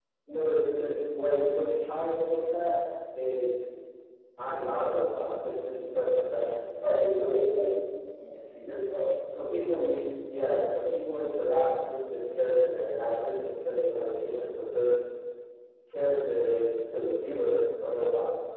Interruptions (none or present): none